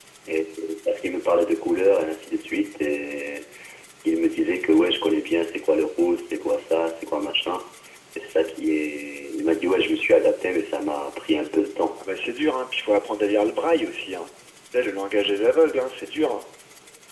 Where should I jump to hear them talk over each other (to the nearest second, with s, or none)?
none